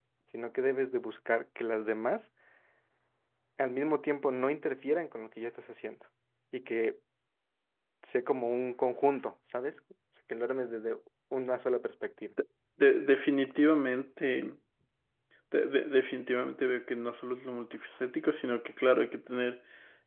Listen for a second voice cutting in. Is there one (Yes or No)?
No